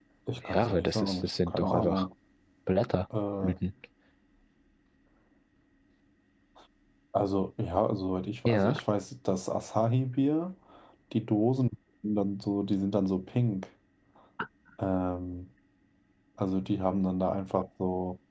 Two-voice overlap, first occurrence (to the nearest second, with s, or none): 1 s